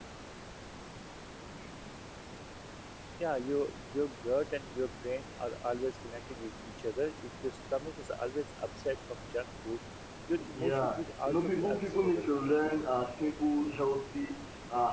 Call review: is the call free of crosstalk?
No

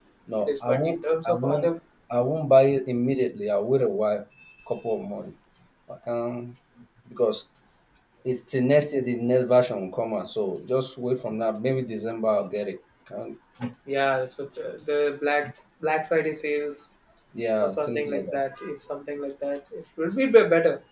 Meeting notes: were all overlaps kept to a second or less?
No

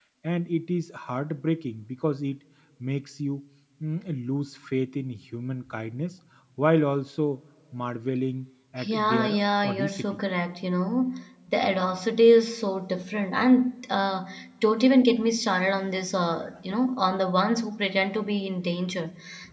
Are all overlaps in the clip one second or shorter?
No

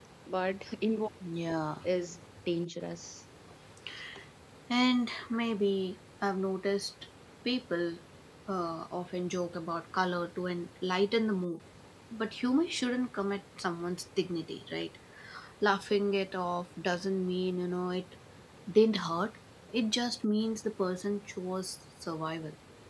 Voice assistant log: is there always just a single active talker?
Yes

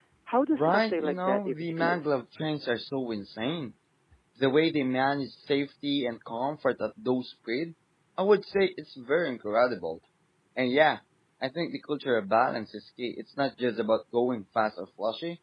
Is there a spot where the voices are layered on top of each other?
Yes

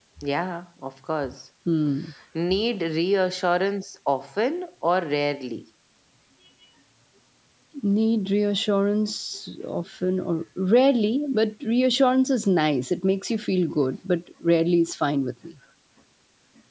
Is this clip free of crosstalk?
Yes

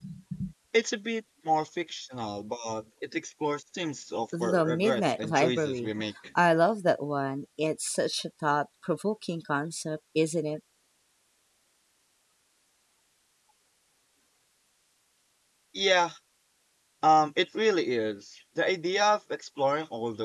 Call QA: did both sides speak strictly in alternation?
No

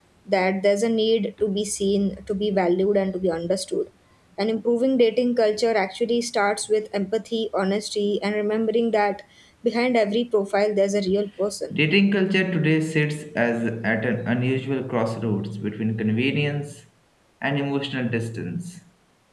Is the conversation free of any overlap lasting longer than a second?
Yes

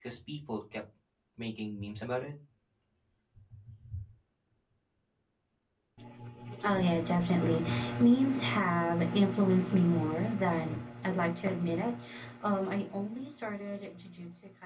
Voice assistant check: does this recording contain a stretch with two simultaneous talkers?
No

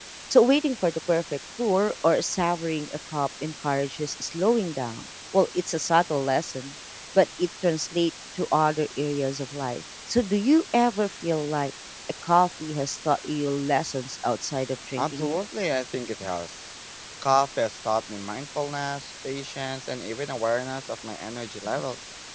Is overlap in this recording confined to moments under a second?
Yes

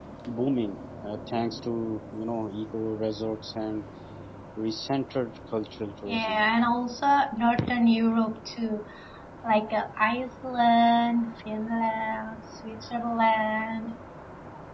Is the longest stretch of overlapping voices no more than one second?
Yes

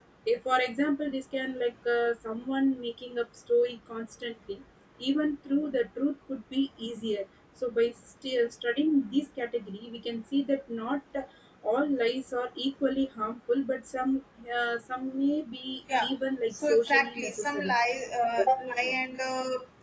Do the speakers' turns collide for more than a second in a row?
Yes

